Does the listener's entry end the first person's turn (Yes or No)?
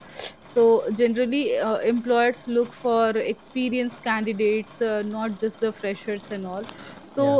No